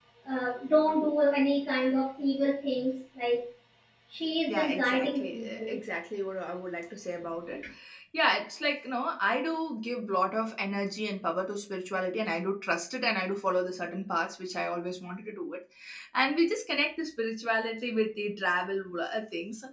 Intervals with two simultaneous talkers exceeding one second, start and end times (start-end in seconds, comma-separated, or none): 4.5-5.8